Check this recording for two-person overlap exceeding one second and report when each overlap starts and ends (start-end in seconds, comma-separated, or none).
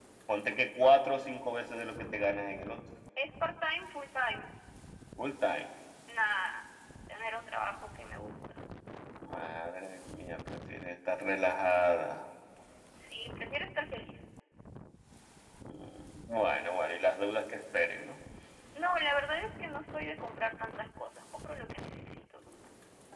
none